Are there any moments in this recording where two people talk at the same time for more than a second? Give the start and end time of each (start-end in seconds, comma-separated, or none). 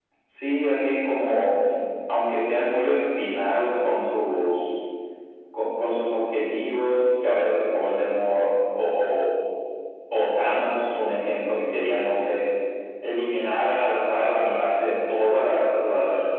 none